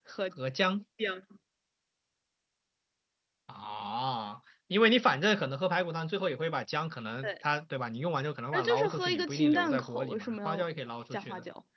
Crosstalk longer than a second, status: present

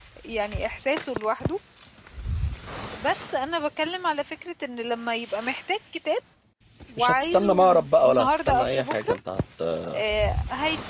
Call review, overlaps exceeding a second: present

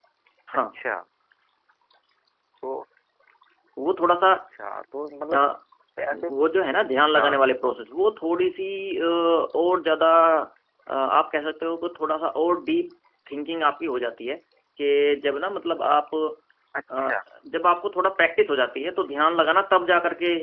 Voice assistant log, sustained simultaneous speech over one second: none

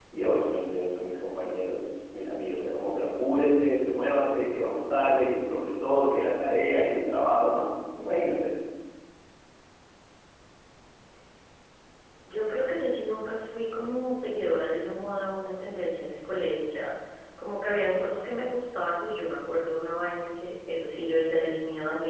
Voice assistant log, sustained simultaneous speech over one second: none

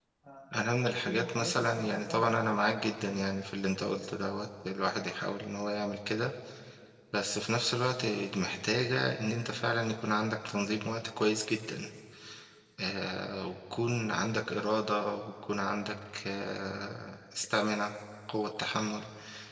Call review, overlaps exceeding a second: present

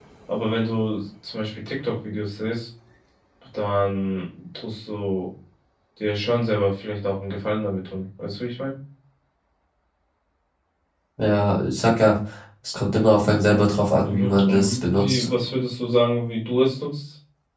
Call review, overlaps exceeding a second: present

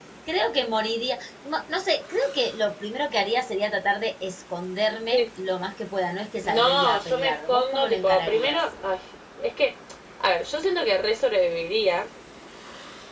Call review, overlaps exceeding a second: present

